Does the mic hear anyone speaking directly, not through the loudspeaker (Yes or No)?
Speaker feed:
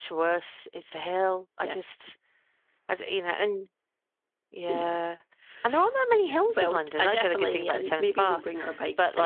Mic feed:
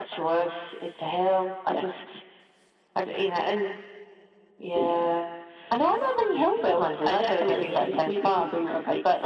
No